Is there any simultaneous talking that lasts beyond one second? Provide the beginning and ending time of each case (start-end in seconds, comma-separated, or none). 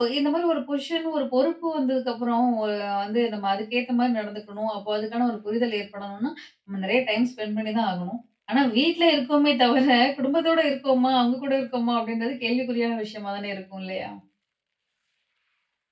none